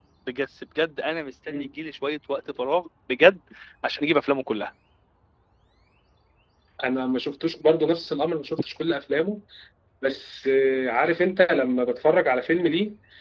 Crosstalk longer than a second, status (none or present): none